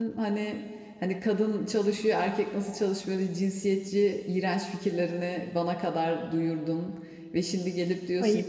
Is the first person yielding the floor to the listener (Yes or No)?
No